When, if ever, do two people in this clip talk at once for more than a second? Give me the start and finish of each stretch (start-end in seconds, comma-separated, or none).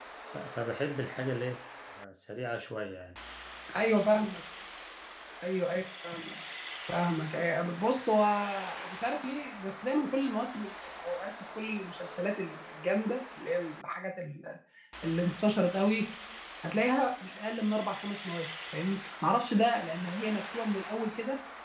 none